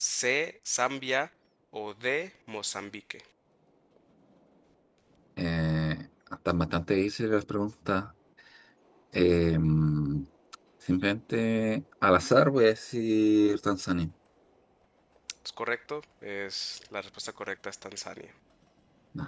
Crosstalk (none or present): none